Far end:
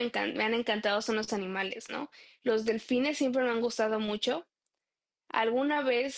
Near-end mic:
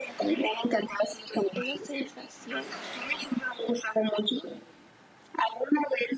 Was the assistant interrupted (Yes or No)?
Yes